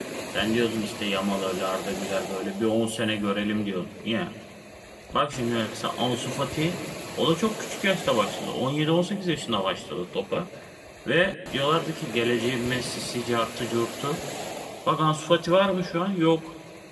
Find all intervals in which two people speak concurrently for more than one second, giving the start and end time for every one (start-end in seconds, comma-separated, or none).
none